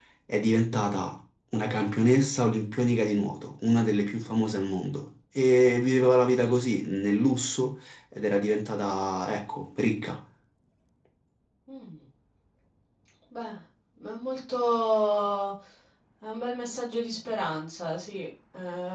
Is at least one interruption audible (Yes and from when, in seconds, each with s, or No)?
No